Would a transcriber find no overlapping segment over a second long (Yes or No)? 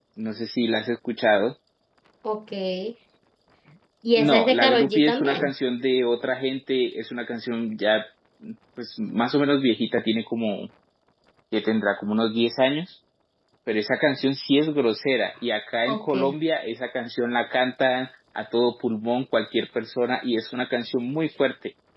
No